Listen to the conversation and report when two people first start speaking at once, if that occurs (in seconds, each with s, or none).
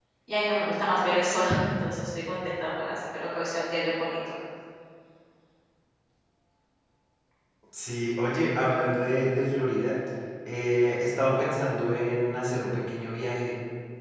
none